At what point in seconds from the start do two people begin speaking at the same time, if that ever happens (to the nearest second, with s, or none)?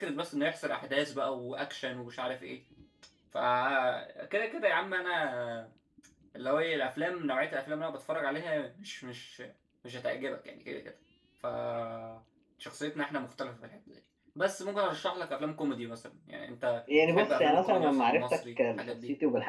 17 s